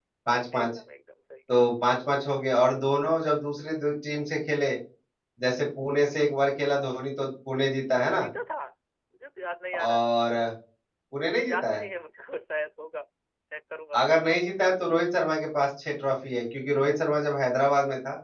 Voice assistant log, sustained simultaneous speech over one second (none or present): none